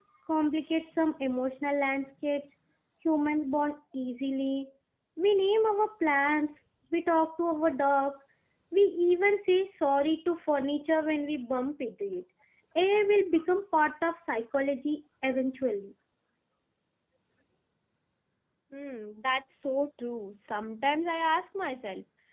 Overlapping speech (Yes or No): No